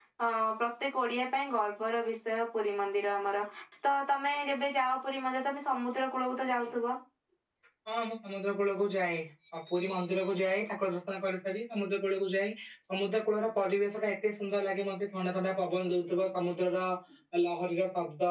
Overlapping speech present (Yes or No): No